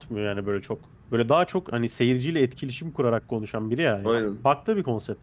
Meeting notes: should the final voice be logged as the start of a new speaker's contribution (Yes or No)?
No